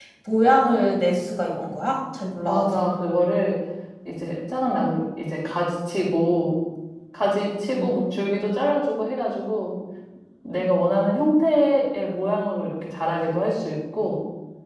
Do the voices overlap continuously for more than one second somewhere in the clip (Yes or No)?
No